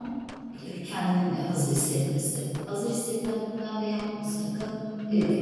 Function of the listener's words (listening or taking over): listening